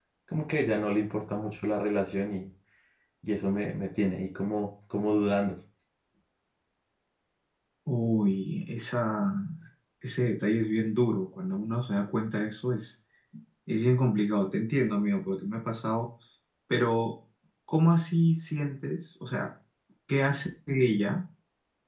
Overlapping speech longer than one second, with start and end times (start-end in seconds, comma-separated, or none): none